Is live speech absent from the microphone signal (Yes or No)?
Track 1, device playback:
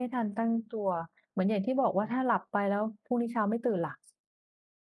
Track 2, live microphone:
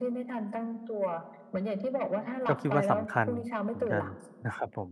No